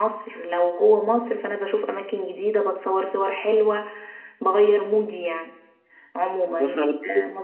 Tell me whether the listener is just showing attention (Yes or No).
Yes